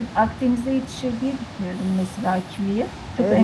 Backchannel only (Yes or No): No